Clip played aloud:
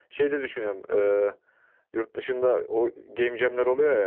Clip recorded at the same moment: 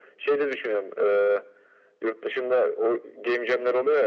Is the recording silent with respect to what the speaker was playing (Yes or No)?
No